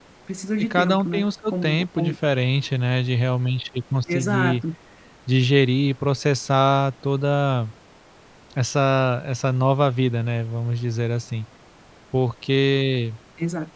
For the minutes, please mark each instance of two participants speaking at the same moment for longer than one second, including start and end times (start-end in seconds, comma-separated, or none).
0.6-2.1